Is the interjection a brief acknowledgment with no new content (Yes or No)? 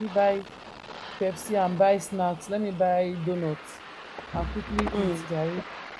Yes